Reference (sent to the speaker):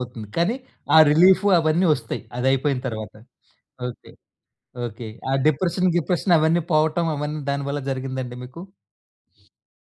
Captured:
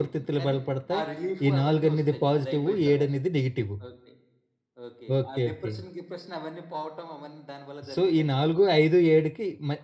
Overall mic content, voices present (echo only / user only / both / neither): both